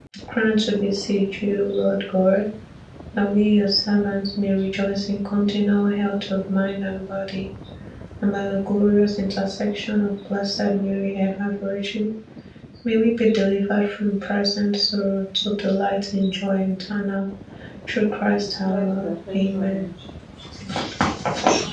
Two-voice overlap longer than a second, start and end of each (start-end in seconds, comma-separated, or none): 18.4-19.9